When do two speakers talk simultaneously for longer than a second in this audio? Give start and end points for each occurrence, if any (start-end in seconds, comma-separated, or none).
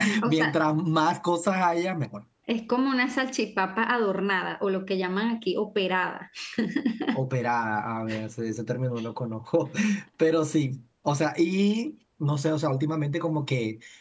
none